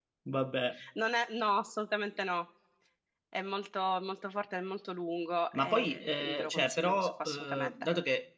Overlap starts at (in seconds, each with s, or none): 5.5 s